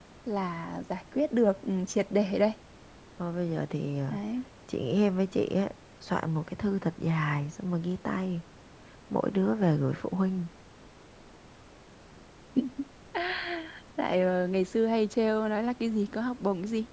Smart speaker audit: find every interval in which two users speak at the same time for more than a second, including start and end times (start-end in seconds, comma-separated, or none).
none